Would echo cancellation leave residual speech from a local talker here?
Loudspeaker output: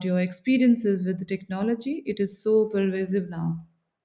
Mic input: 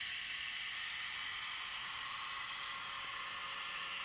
No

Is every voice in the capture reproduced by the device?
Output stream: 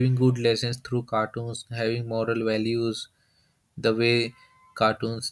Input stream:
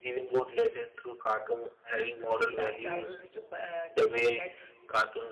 No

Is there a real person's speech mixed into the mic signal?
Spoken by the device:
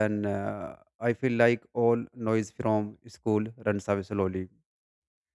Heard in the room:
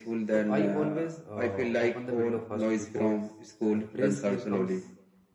Yes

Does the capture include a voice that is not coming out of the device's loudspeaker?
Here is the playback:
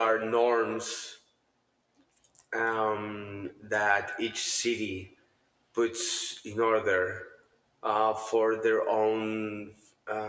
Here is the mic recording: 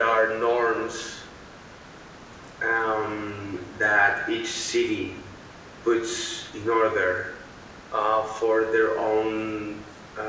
No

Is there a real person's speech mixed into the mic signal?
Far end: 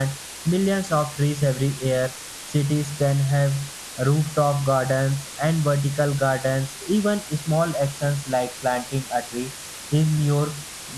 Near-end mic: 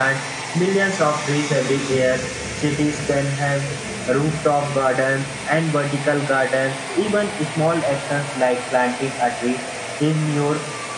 No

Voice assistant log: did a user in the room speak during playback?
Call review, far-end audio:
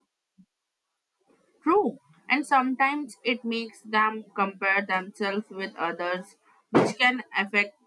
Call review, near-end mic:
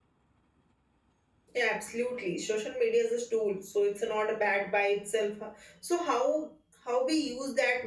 Yes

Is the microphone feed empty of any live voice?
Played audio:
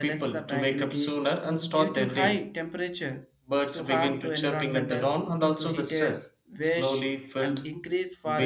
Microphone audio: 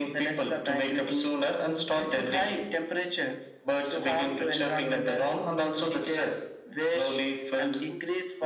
Yes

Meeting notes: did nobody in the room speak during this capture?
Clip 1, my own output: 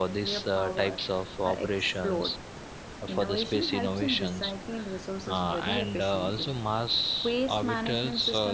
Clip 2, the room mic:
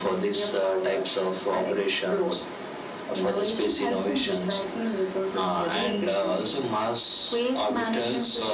Yes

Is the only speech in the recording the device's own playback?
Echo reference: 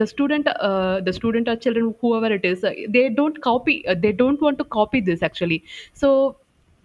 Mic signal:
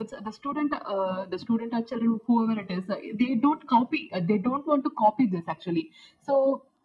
Yes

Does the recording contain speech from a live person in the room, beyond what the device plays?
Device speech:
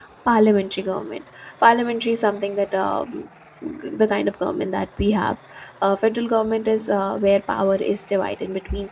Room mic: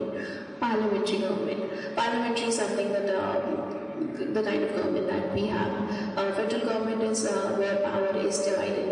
No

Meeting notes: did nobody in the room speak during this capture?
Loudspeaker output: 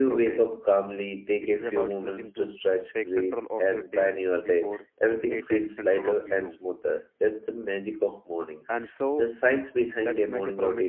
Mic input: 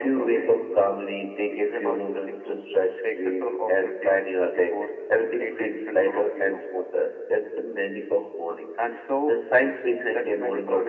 Yes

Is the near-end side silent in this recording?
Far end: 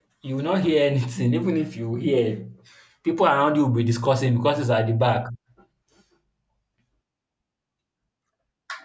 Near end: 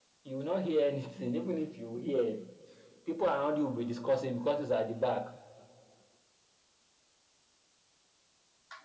Yes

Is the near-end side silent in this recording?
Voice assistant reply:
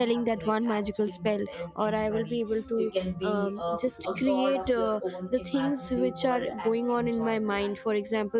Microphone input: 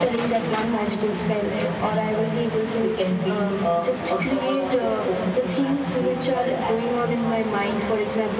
Yes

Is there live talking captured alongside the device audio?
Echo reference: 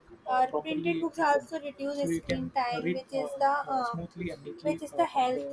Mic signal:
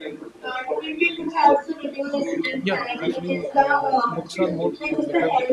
Yes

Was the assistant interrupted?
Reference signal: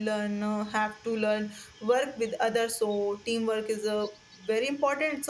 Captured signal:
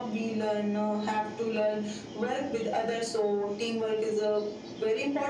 No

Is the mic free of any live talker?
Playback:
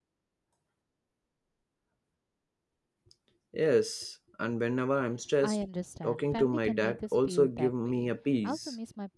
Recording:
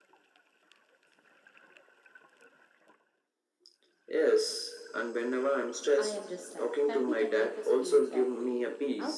Yes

